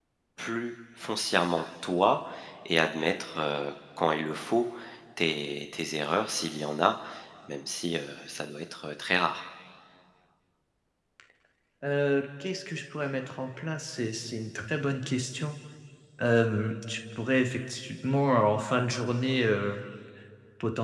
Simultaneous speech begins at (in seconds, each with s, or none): none